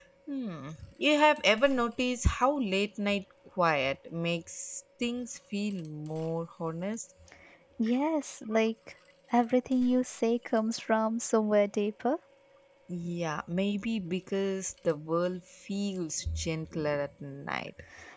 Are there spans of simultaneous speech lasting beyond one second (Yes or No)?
No